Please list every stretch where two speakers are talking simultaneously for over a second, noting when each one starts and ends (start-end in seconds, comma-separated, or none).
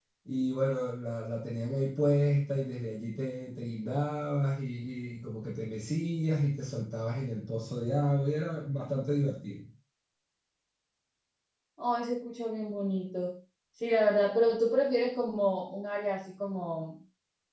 none